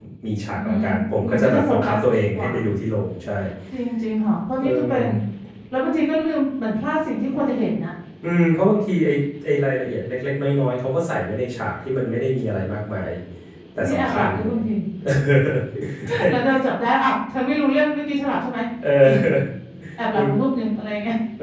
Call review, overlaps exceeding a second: present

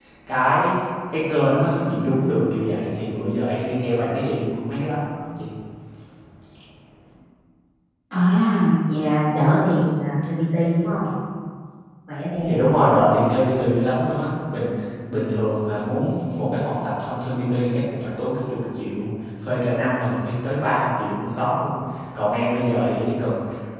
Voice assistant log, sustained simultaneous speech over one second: none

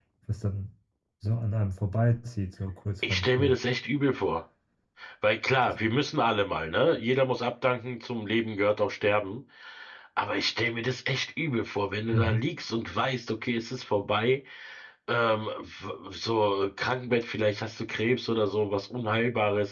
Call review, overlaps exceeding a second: none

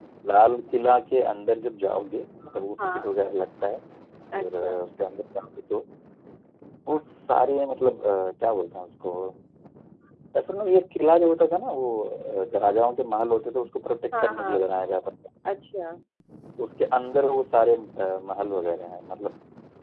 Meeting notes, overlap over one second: none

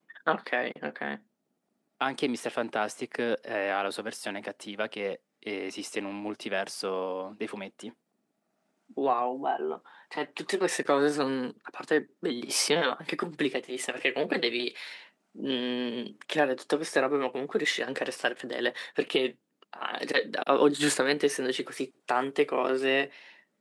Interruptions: none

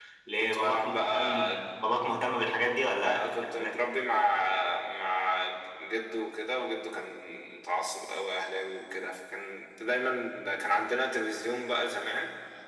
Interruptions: present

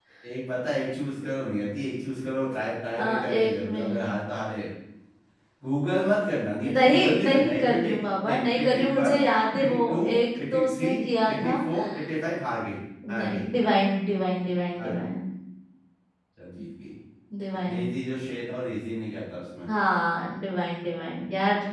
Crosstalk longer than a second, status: present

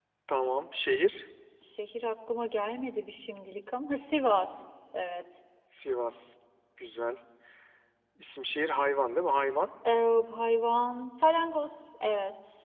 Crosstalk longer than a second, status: none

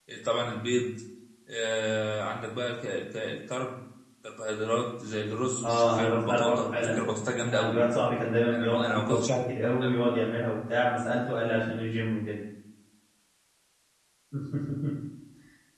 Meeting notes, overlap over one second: present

